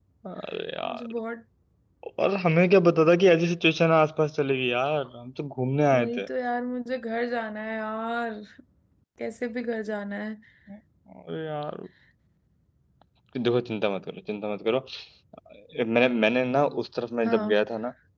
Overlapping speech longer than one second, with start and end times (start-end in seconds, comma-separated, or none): none